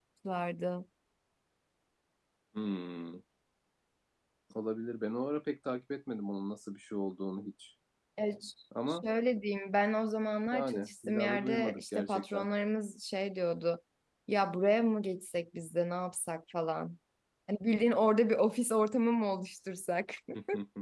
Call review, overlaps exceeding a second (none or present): present